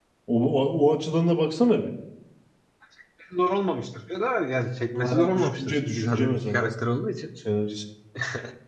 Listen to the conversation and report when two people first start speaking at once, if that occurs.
5.0 s

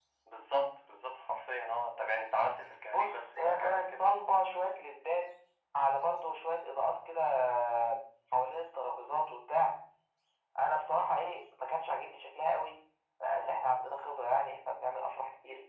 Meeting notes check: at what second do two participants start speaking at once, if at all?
2.9 s

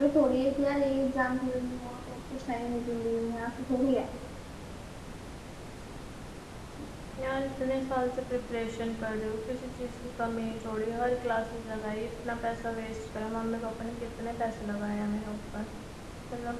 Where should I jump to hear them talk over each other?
none

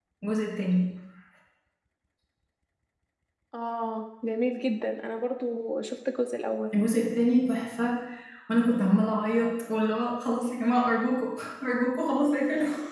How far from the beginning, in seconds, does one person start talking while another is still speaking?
none

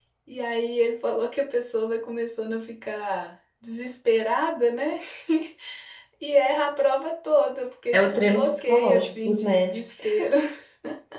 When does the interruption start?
7.9 s

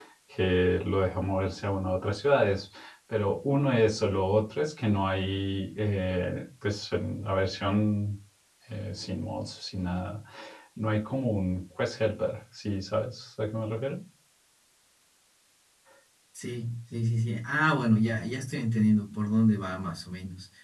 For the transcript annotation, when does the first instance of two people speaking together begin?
none

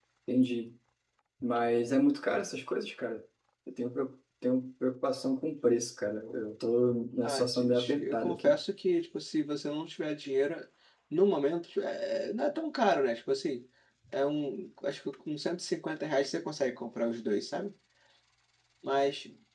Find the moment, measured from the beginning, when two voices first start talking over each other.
7.2 s

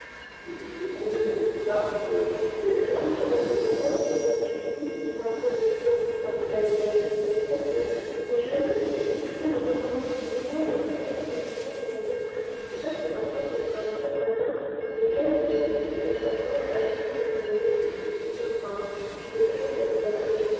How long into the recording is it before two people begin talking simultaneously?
2.8 s

